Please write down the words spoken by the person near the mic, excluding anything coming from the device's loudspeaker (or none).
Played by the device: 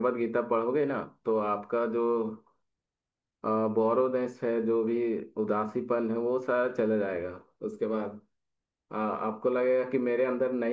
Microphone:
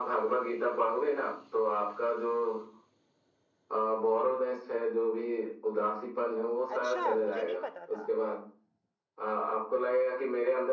अच्छा मुझे नहीं पता था